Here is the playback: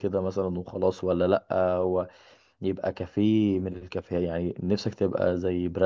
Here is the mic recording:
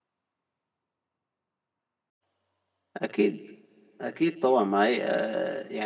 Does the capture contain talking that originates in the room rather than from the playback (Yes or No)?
Yes